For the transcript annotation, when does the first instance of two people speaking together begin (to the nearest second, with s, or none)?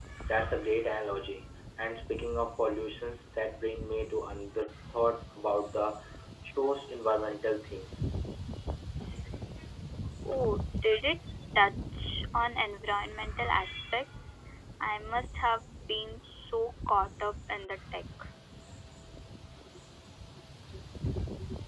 none